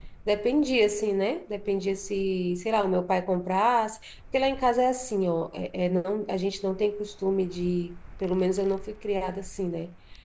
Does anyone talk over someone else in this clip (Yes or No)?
No